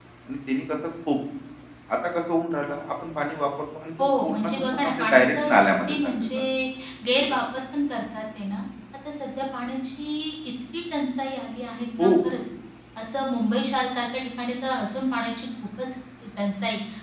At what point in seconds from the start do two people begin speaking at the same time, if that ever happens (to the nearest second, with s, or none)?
4 s